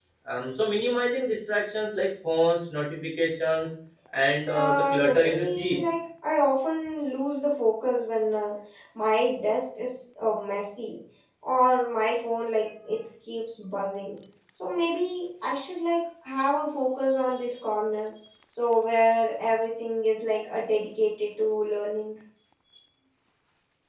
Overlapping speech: Yes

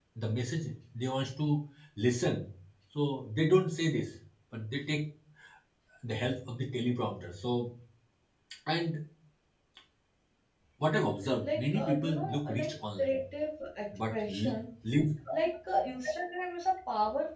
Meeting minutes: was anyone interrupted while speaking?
Yes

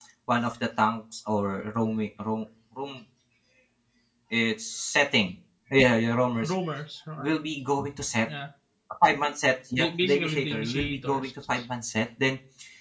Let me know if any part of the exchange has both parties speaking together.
Yes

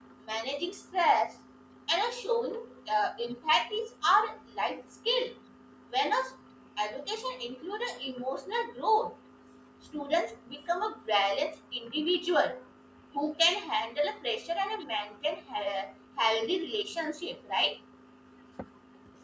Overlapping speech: No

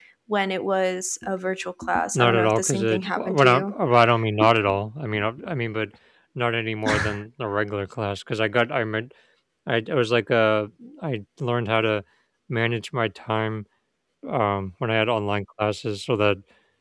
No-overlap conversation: No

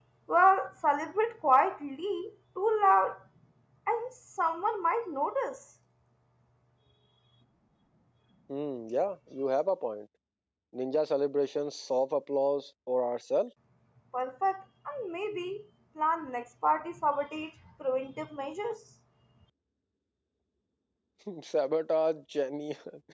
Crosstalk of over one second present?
No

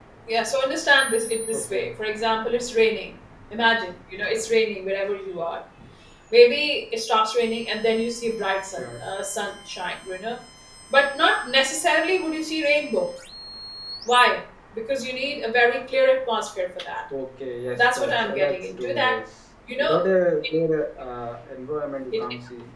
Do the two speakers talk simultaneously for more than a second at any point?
Yes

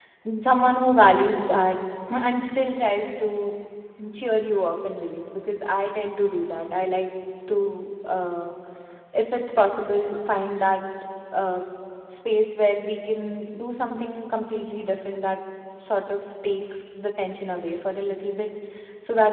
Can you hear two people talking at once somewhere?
No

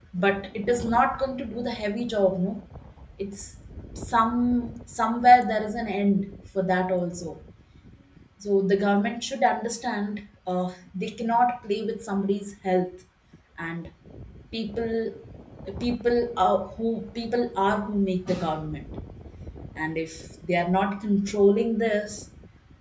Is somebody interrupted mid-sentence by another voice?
No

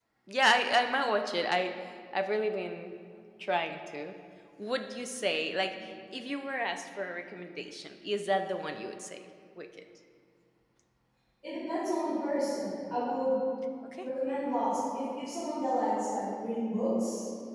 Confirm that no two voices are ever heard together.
Yes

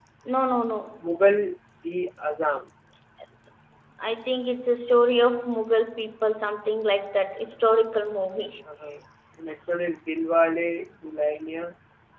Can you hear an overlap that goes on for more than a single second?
No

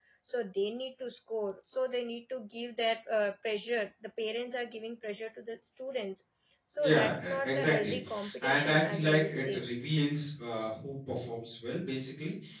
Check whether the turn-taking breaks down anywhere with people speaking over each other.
Yes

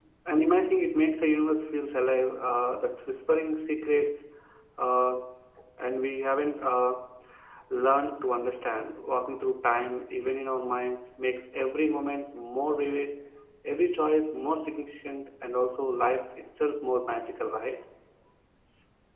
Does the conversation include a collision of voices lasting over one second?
No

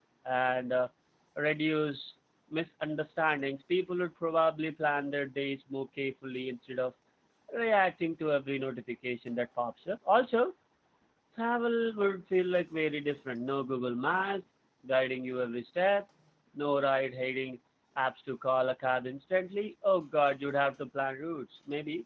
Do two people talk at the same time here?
No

